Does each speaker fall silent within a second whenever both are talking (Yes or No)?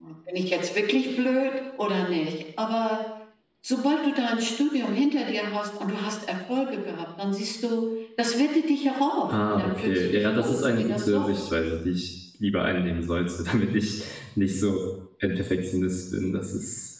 No